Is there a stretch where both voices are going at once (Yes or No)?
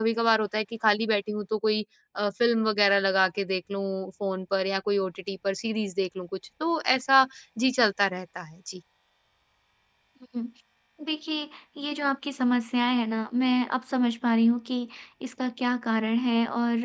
No